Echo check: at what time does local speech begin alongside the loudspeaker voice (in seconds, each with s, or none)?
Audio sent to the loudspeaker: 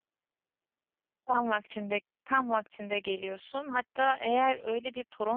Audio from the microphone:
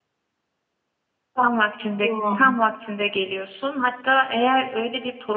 2.0 s